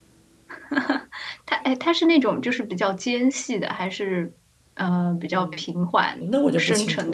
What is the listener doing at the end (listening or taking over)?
taking over